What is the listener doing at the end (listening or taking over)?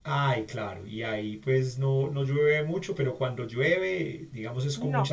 taking over